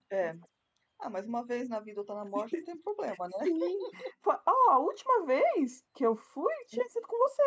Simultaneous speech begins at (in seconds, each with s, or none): none